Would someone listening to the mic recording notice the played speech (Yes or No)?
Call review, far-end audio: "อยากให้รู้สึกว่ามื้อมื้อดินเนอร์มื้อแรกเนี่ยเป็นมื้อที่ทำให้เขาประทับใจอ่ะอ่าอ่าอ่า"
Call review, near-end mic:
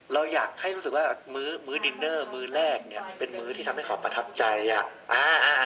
Yes